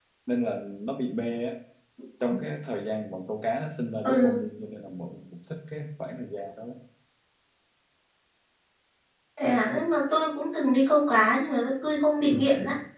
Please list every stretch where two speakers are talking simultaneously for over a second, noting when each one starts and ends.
none

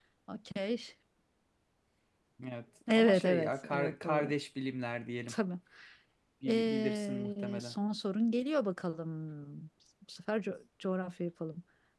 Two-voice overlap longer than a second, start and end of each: 3.0-4.3, 6.5-7.8

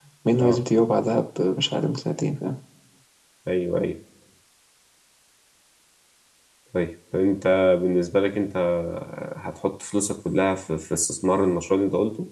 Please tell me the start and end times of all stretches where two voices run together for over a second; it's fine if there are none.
none

